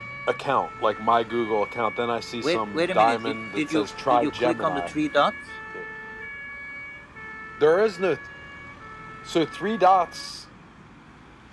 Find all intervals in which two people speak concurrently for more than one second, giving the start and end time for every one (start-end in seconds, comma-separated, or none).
2.4-4.9